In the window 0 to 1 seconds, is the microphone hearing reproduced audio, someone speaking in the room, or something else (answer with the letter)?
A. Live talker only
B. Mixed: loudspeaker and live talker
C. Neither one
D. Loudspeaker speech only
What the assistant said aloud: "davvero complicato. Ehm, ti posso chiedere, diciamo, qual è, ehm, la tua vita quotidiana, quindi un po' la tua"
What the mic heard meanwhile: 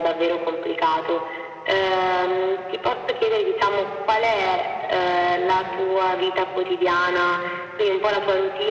D